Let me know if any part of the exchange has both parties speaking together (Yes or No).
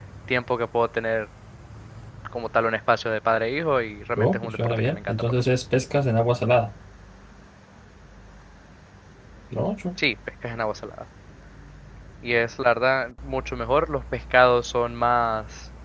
Yes